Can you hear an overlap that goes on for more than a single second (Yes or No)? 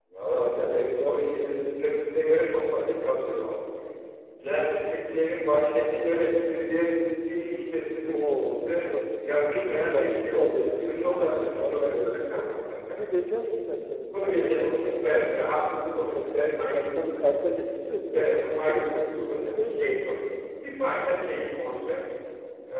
Yes